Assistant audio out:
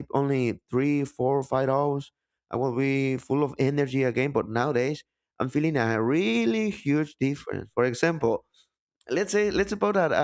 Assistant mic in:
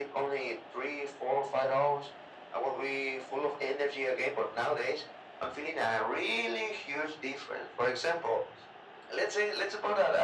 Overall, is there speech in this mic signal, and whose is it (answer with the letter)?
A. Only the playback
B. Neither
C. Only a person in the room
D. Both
A